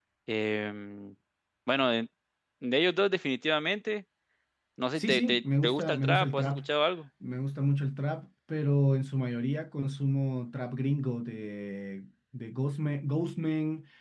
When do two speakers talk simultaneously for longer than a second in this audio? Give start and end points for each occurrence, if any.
5.0-6.6

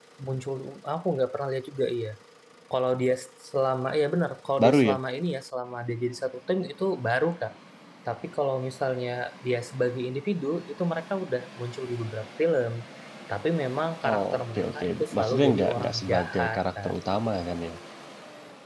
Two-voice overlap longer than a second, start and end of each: 14.1-16.9

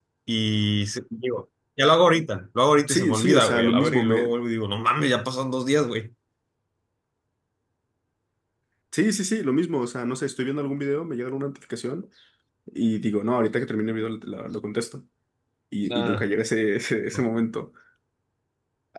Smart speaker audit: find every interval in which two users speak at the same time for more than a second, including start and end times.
2.9-4.3

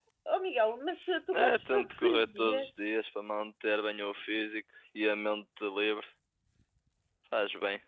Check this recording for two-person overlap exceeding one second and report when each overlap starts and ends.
1.3-2.7

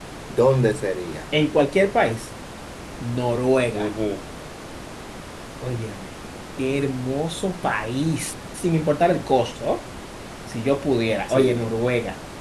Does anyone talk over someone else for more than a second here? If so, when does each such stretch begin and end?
none

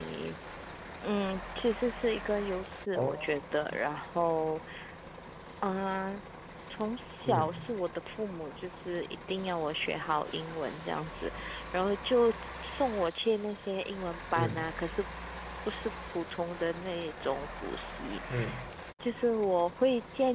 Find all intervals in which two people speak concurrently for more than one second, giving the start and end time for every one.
none

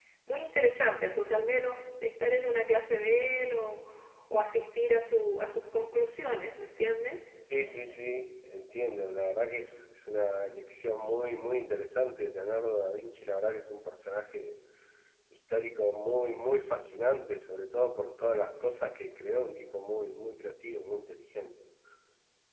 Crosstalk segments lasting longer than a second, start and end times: none

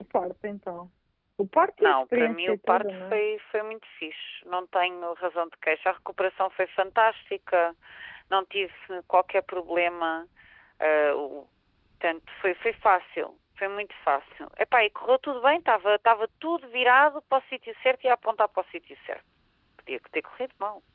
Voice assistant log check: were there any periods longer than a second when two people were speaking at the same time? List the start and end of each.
1.8-3.2

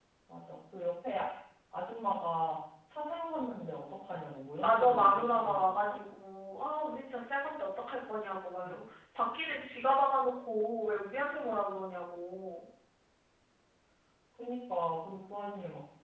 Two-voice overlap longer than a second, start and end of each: 4.6-6.0

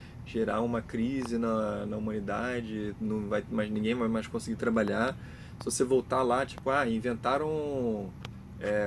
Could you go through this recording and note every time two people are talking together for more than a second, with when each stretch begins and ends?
none

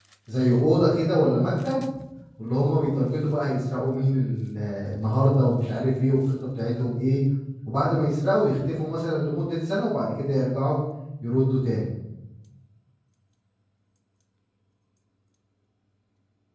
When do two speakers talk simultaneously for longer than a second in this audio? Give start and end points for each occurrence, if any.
none

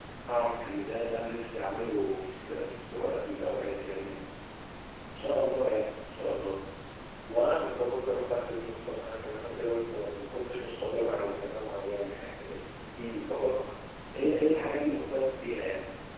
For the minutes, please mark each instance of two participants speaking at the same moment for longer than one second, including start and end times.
none

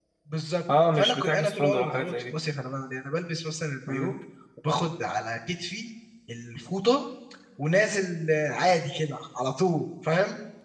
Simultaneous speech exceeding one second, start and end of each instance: 0.9-2.3

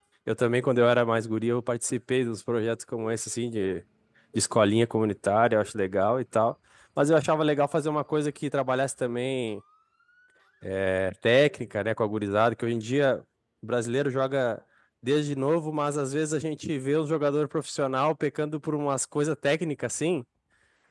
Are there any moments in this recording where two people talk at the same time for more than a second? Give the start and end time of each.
none

